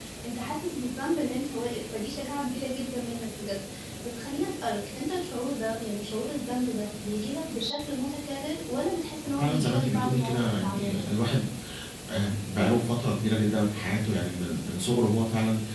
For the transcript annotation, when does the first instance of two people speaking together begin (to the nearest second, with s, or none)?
9 s